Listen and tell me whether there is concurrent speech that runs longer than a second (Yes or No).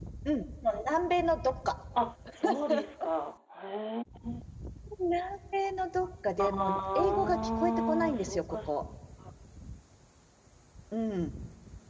Yes